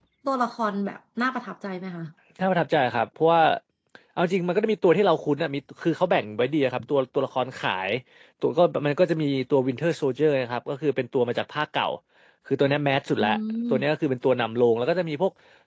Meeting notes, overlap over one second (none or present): none